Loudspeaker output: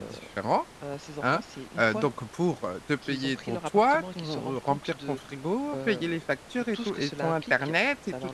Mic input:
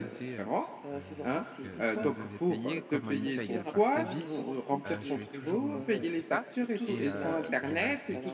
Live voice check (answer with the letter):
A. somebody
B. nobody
A